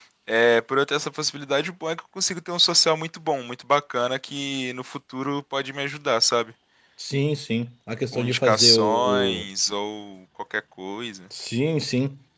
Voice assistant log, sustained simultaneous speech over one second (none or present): present